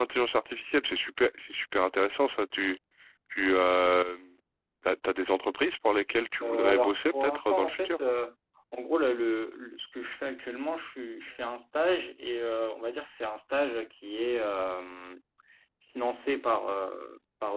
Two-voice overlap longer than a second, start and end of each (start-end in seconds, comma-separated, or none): 6.4-8.0